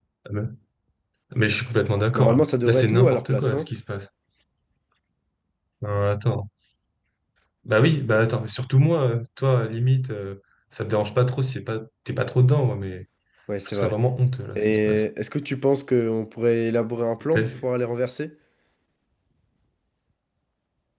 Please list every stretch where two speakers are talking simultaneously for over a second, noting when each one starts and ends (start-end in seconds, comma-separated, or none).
2.1-3.7